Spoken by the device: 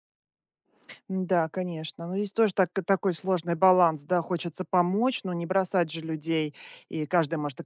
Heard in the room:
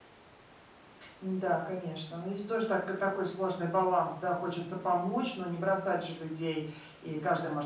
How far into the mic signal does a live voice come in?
none

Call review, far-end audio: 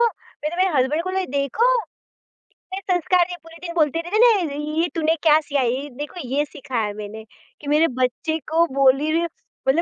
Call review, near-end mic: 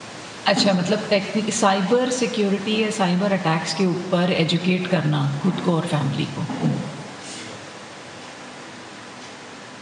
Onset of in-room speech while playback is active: 0.5 s

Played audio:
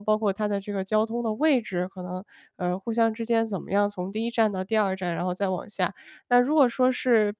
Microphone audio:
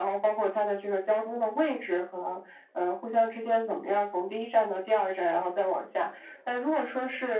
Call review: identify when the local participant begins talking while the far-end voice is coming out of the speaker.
none

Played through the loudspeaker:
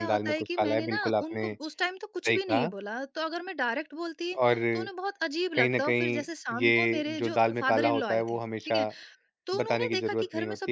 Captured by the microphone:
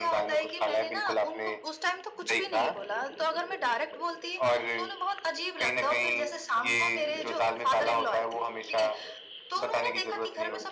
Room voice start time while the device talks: none

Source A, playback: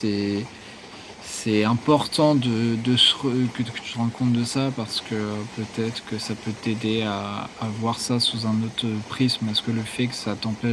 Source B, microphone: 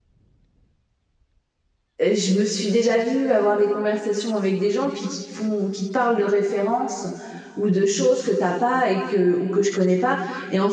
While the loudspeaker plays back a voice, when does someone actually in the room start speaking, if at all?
2.0 s

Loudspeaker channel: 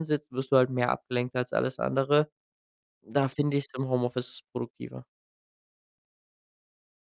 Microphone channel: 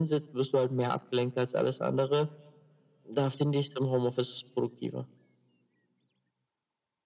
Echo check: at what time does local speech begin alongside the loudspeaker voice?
none

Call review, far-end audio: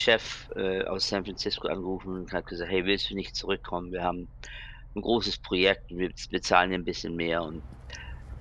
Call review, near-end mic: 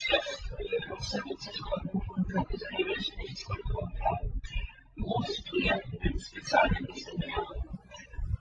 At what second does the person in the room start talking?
none

